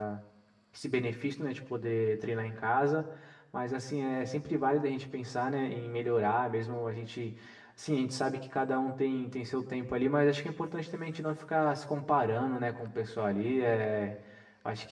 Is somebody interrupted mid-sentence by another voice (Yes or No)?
No